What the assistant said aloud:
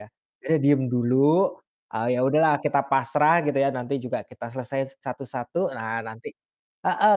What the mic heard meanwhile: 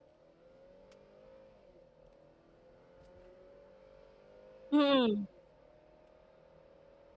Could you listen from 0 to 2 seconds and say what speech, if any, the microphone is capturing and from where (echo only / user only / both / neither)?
neither